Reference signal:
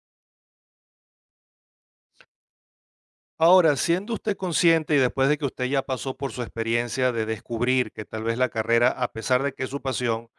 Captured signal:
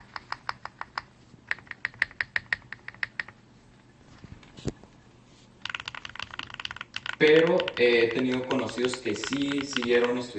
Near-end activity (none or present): present